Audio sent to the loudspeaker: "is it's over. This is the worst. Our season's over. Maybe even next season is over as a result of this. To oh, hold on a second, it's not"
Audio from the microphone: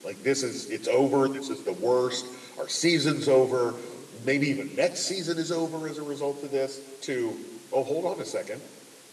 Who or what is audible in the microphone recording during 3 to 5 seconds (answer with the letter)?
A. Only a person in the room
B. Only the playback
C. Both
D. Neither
B